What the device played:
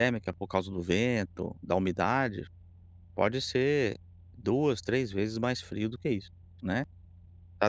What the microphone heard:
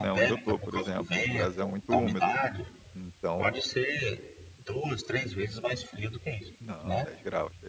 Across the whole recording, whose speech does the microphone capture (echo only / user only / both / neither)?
both